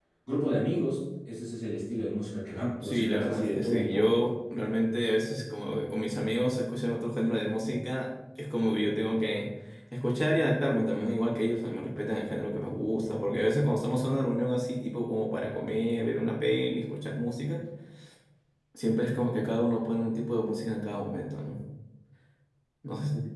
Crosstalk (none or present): present